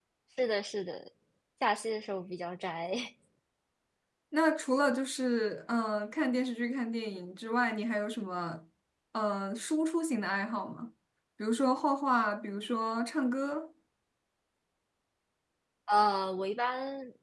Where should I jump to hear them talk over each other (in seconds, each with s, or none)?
none